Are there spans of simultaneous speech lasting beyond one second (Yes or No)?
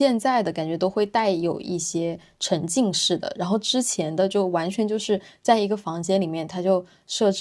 No